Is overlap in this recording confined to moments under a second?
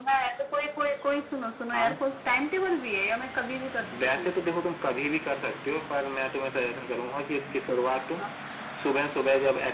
Yes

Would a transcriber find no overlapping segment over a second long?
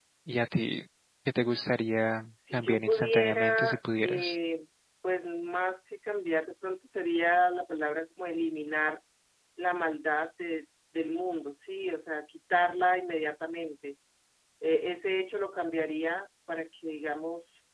No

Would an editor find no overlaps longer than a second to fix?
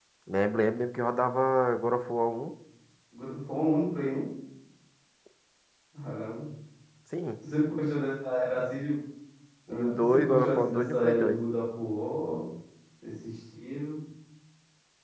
No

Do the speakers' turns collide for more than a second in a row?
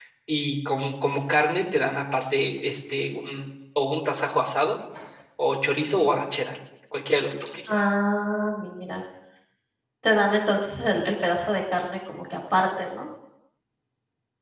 No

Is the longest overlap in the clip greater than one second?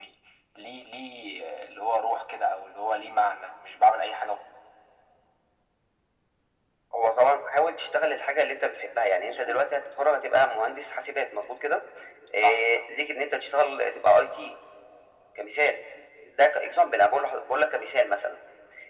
No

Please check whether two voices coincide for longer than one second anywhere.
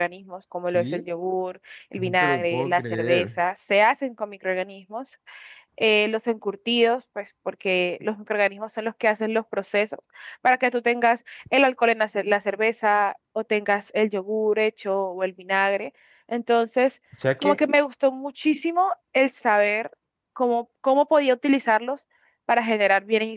Yes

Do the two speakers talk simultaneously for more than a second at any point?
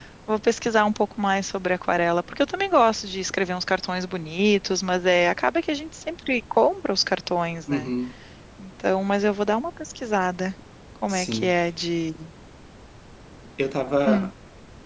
No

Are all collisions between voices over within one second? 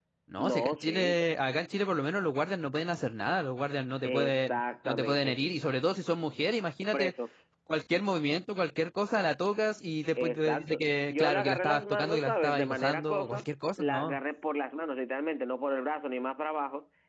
No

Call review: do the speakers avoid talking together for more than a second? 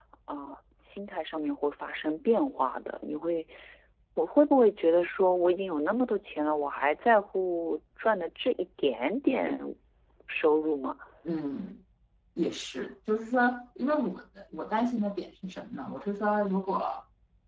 Yes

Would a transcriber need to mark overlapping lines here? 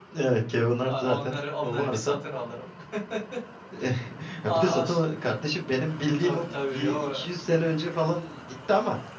Yes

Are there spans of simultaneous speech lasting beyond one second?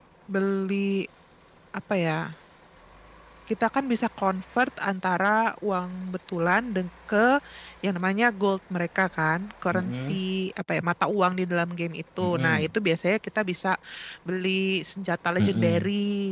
No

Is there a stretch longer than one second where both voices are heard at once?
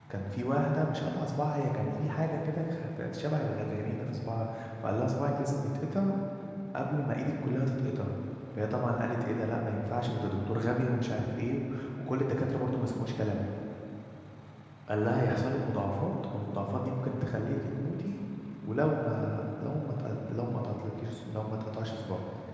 No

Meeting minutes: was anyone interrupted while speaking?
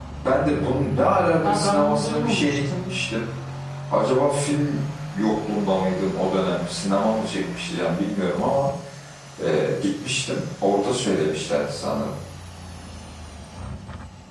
Yes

